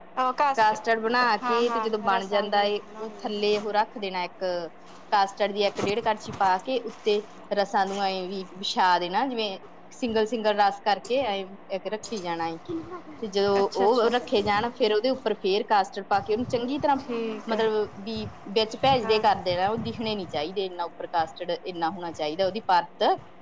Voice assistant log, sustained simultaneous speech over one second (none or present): present